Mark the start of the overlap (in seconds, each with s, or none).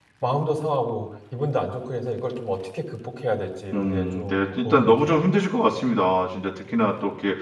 3.7 s